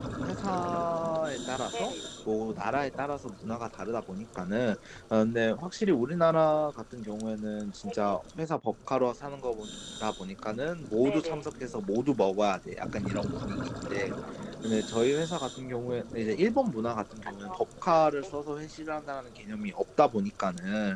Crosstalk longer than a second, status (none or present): none